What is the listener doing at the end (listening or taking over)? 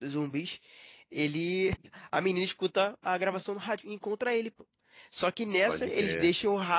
listening